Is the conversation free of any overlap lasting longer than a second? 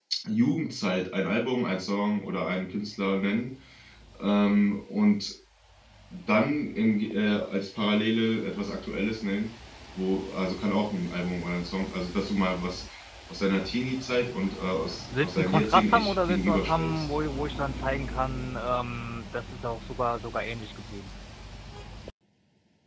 No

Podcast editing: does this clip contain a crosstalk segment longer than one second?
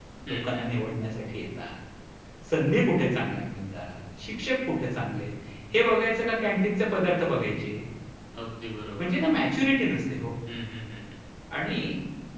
No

